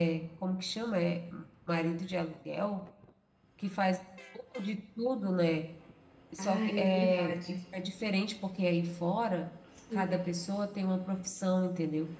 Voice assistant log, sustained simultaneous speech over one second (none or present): present